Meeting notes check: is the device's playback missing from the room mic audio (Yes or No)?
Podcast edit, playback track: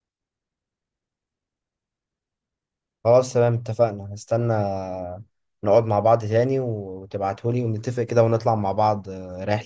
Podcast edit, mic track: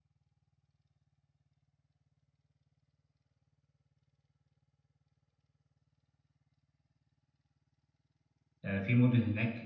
Yes